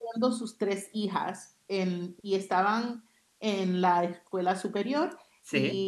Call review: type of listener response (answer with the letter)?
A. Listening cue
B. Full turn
A